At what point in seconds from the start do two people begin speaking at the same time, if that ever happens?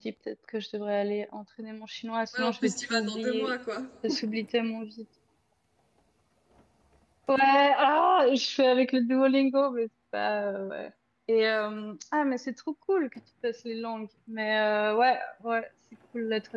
2.3 s

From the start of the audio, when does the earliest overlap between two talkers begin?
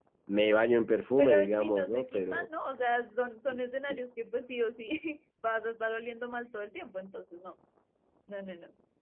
1.2 s

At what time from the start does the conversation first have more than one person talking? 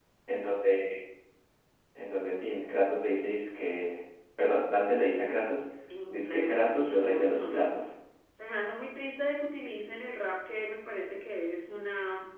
6.1 s

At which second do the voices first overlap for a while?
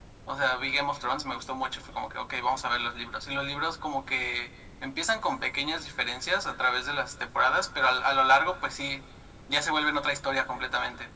none

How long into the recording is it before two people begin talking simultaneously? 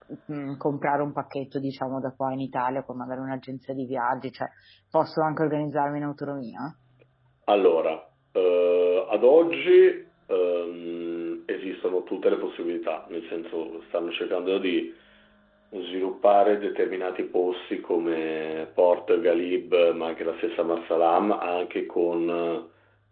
none

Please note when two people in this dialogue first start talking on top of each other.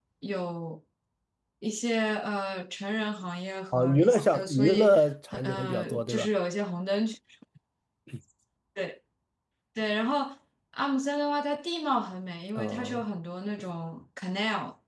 3.7 s

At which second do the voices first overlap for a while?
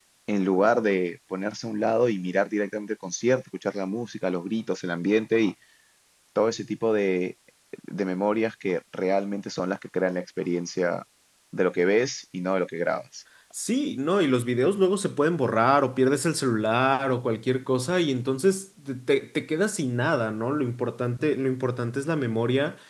none

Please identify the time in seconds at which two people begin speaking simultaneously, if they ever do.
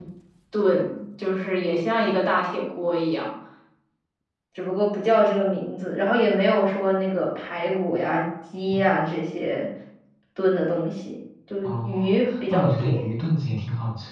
11.6 s

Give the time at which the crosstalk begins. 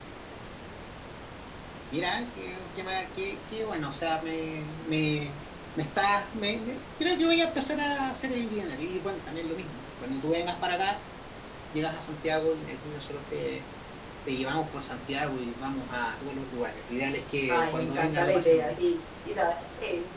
17.5 s

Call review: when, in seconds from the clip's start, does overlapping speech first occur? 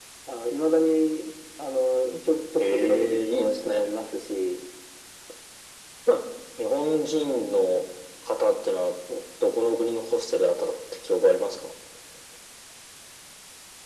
2.6 s

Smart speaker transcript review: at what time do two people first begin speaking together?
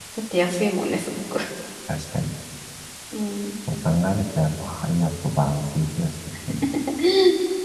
none

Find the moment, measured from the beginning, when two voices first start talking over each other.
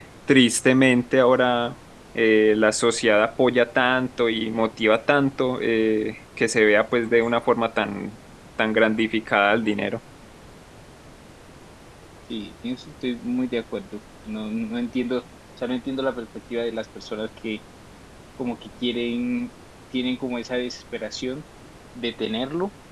none

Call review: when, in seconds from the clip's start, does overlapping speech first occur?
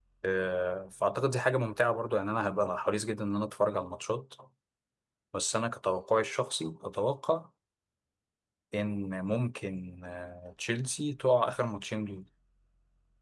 none

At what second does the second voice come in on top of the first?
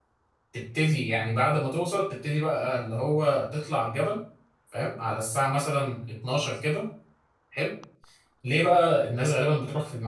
none

